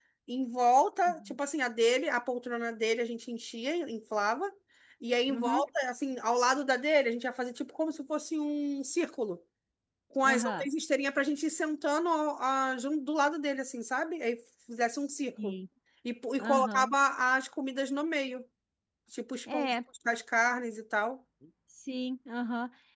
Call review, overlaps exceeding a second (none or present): none